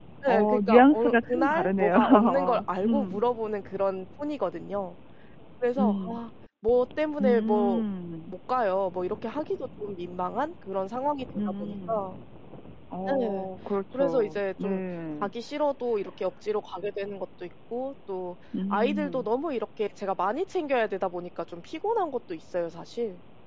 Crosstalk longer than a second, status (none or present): present